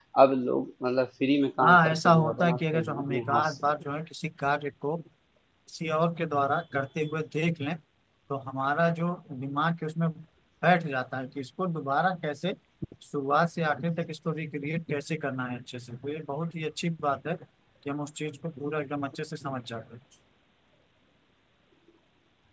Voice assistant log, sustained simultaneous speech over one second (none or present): present